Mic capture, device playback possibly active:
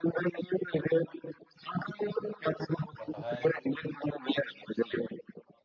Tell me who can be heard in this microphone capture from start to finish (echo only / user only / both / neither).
both